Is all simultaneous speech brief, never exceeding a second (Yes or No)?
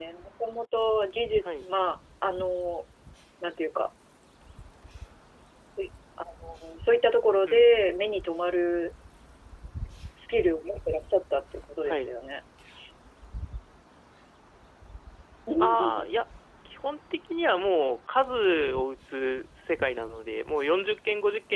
Yes